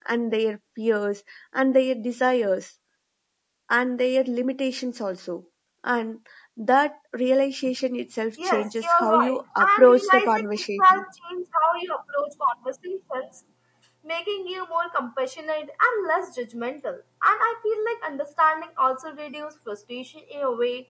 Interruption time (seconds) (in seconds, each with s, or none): 8.4 s